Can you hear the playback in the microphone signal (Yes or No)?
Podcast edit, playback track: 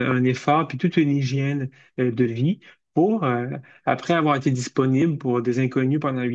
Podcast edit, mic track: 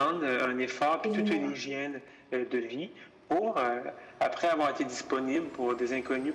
Yes